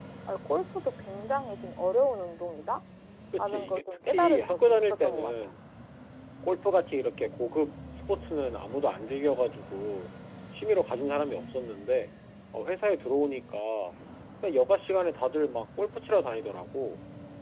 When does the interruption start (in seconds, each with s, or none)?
3.4 s